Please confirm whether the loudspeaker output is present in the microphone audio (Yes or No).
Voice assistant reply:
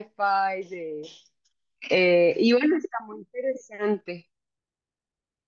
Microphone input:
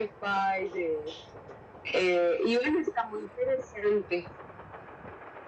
Yes